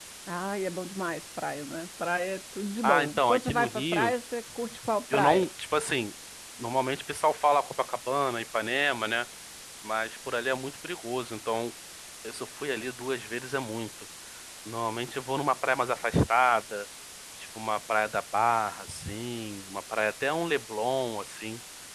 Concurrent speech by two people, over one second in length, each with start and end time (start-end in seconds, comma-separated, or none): 2.8-4.1